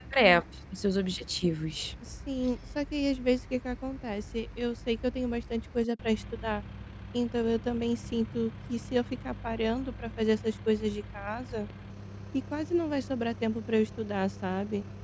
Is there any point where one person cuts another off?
No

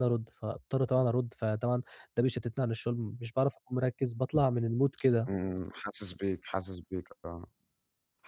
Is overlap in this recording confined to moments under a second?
Yes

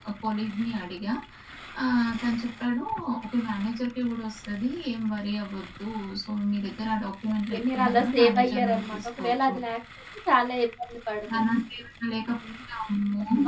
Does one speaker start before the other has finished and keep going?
Yes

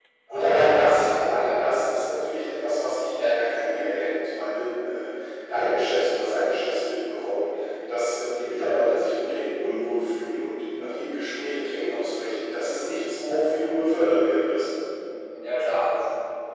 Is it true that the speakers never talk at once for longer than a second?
No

